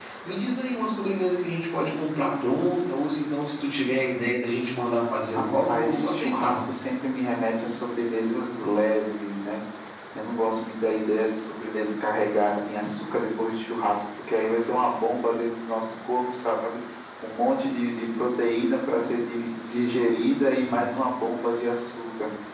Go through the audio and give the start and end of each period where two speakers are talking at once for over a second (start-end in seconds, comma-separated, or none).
5.3-6.6